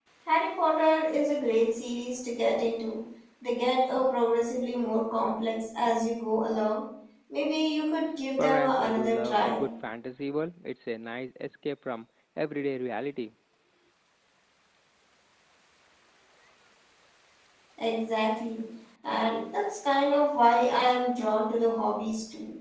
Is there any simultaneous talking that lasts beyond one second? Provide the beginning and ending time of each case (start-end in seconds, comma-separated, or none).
8.4-9.7